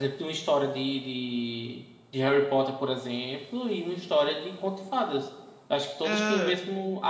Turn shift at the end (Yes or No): No